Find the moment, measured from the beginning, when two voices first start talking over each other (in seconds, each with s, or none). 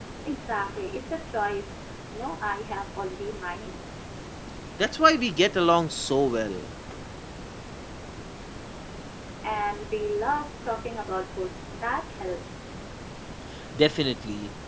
none